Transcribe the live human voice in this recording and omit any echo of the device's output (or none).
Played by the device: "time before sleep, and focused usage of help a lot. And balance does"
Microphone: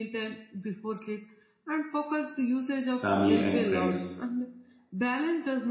family and friends